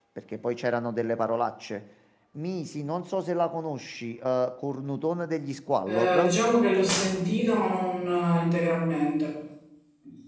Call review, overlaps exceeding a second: none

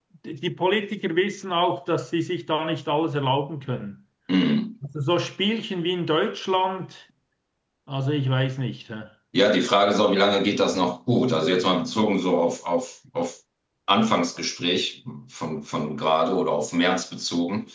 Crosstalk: none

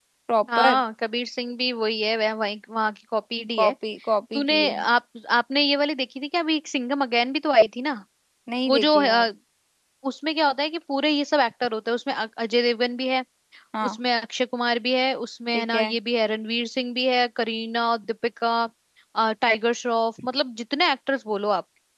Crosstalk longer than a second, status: none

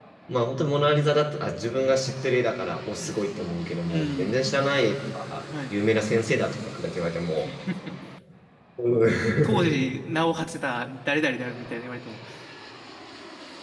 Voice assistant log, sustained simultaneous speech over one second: none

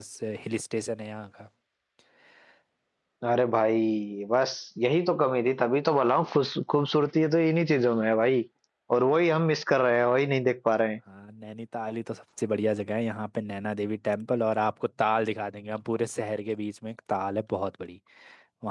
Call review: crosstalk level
none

